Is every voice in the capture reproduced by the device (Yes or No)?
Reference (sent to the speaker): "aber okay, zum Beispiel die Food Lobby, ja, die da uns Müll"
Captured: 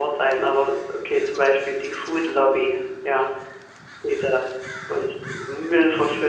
Yes